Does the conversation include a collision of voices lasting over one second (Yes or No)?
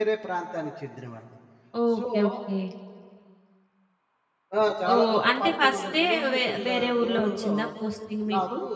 Yes